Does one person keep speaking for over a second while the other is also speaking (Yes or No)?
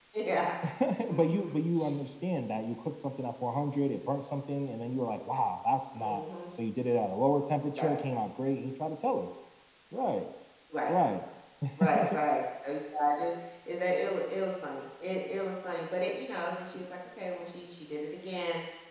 No